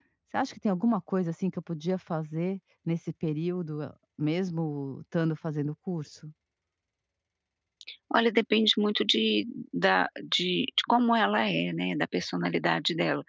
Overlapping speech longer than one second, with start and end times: none

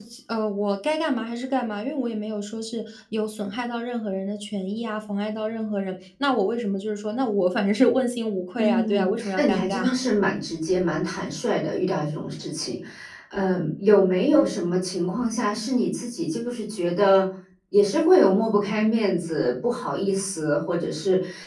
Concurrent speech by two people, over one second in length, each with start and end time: 8.6-9.8

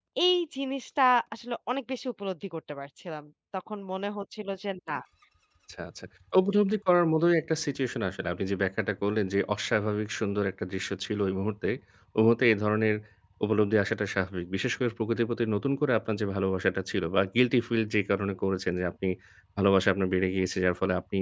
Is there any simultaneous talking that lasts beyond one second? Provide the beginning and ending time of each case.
none

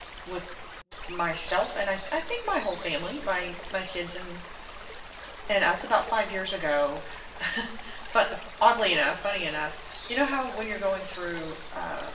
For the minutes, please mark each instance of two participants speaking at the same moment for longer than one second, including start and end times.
none

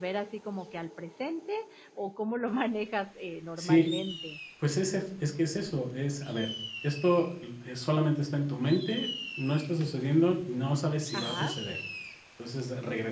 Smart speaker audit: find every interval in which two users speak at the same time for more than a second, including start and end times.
none

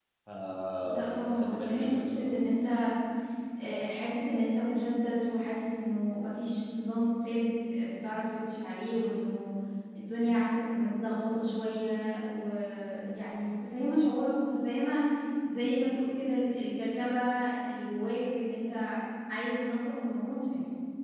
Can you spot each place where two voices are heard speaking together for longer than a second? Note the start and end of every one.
0.8-2.3

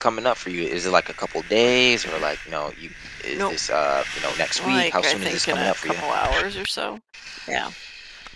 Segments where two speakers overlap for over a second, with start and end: 4.6-5.9

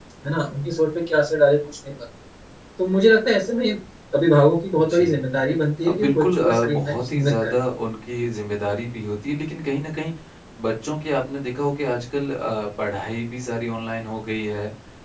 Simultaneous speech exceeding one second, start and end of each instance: 5.9-7.6

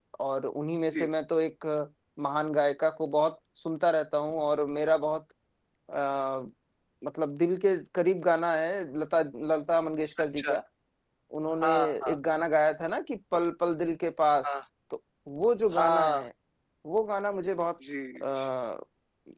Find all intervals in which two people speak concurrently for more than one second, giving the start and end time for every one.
none

